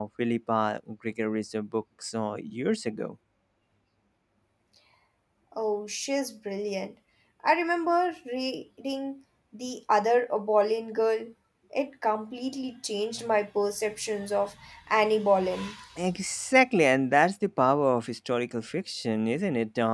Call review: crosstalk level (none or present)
none